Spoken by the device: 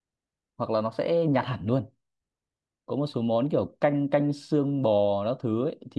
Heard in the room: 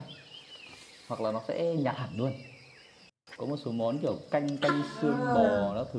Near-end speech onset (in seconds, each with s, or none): 4.8 s